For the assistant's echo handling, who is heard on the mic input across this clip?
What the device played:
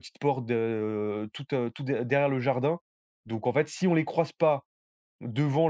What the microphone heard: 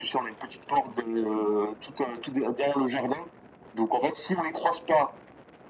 echo only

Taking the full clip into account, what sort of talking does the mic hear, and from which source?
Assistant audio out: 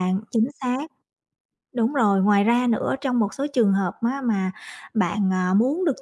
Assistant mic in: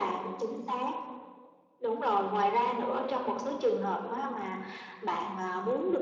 echo only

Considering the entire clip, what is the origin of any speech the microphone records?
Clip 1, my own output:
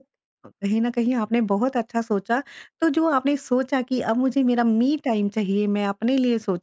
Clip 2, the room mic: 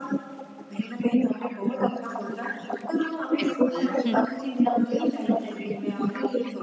both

